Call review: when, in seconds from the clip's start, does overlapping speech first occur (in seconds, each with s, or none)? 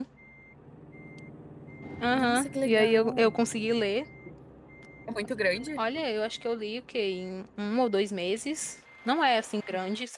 2.1 s